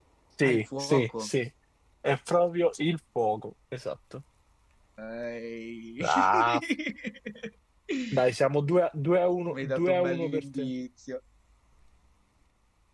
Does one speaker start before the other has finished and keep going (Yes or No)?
Yes